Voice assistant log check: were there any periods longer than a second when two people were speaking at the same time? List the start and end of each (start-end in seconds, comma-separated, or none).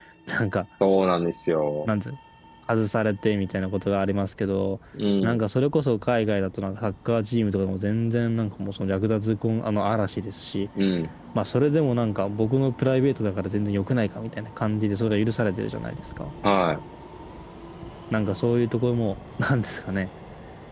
none